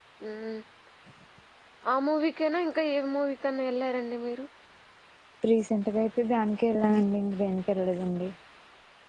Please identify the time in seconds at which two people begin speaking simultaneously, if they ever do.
none

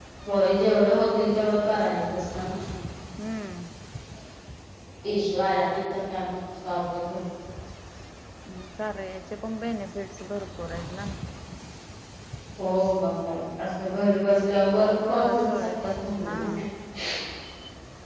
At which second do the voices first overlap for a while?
15 s

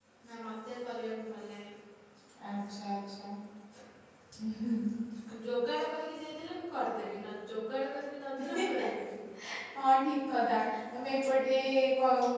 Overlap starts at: none

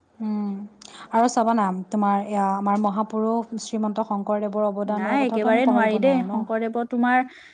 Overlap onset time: 5 s

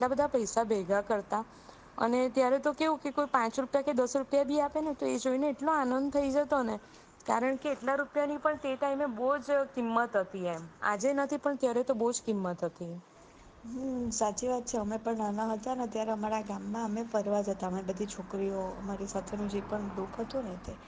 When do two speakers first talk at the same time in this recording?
none

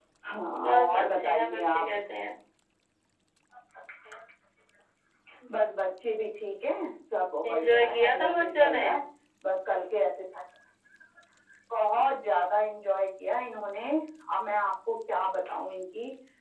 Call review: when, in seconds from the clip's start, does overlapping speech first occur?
1 s

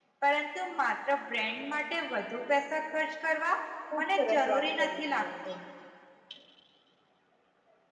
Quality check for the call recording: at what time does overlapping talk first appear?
4 s

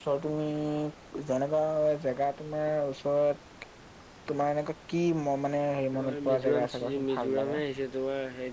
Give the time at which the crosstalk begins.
6 s

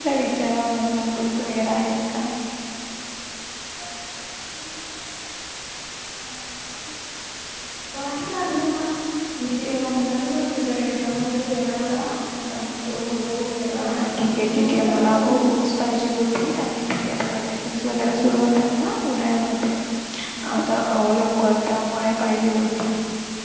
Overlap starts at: 14 s

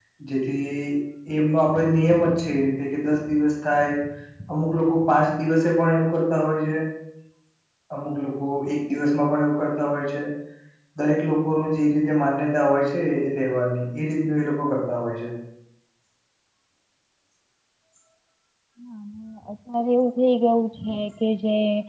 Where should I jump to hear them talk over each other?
none

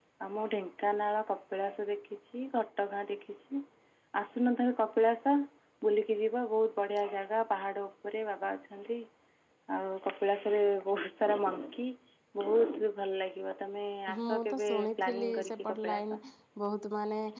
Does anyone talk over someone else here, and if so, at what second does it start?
14 s

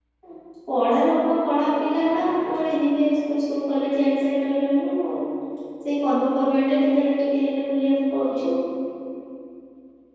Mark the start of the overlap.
none

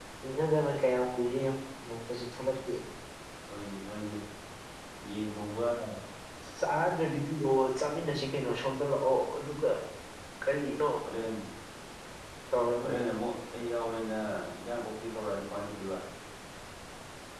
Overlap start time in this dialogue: none

